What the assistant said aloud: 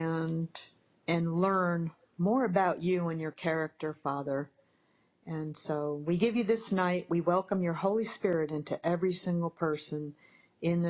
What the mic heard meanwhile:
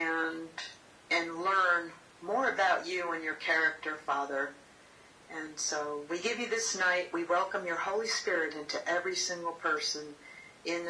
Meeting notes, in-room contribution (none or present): none